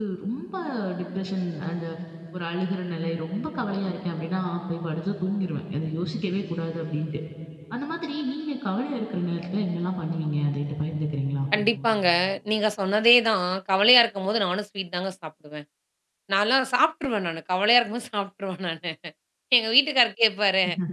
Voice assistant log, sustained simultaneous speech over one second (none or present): none